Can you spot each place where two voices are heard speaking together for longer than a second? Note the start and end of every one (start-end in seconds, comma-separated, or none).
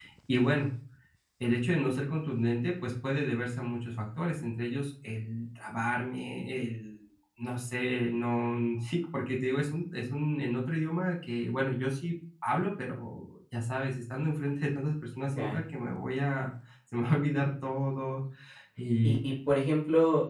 none